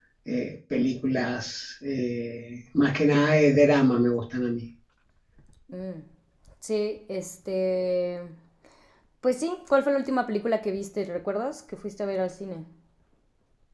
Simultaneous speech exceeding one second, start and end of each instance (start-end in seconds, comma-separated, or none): none